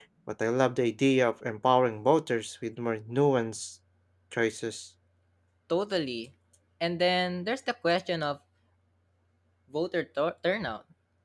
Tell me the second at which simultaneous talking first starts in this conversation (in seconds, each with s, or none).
none